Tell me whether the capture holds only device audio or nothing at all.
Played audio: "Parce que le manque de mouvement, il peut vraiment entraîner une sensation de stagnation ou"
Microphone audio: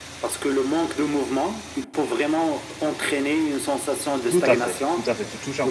No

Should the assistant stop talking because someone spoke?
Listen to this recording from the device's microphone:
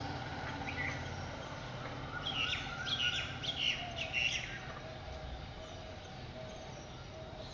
No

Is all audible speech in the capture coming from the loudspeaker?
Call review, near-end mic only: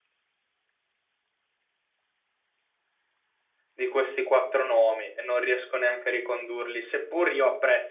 No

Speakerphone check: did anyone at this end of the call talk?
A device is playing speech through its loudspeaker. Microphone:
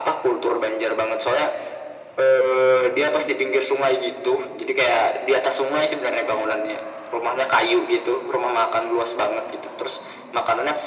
No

